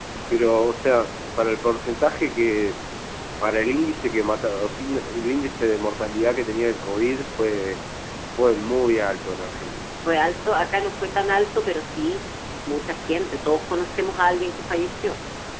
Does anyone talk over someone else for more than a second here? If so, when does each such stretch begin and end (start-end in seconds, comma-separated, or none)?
none